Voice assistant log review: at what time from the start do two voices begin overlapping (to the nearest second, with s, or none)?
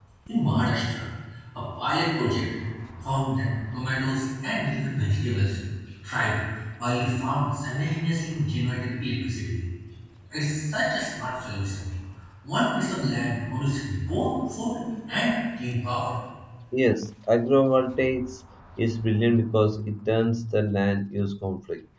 none